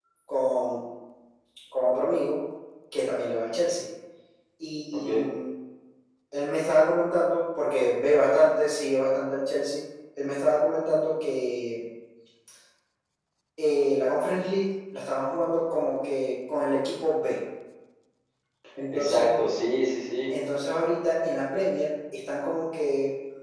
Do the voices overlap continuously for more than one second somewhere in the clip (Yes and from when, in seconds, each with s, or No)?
No